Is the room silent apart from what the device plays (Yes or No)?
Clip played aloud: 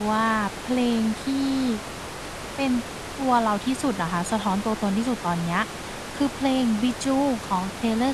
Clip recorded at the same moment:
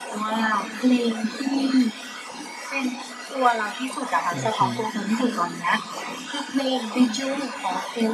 No